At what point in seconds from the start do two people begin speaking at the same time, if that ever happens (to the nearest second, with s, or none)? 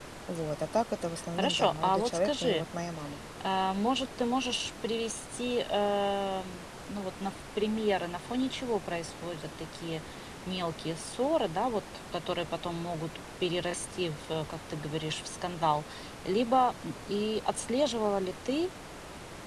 1 s